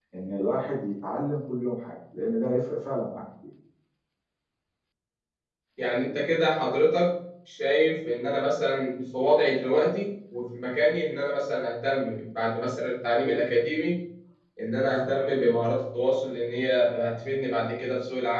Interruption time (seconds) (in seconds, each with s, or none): none